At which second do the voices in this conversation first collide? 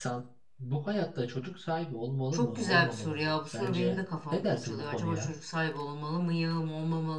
2.3 s

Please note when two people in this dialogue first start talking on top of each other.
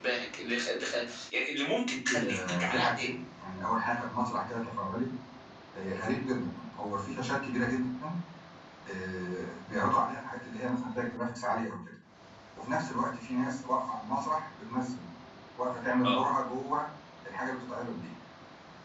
1.9 s

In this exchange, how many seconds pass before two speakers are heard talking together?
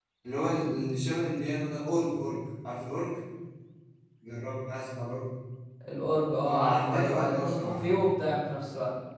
6.4 s

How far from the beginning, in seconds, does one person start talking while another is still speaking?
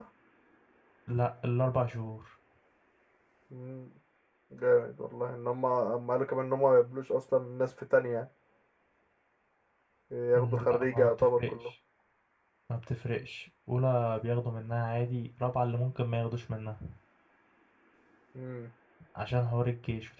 10.4 s

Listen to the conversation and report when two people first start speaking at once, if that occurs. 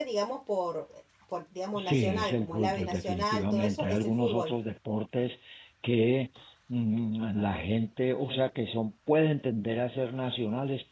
1.8 s

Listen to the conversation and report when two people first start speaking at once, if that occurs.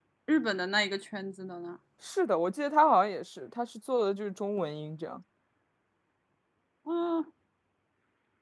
none

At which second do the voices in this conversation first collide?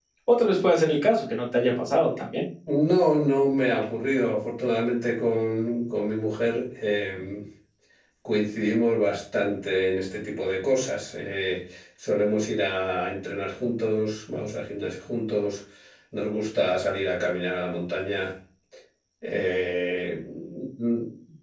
none

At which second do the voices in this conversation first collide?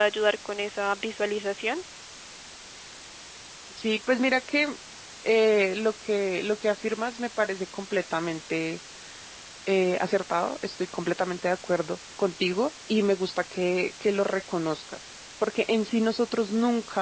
none

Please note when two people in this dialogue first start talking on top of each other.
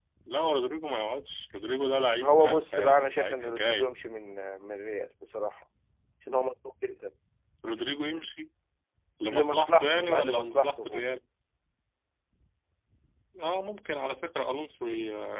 2.2 s

